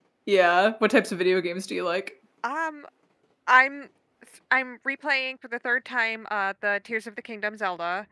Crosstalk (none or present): none